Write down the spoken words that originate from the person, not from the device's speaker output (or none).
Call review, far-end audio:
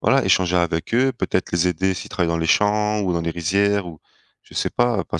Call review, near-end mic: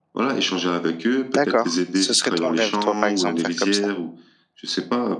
D'accord, ce serait ton rêve toi, par exemple, faire comme ça?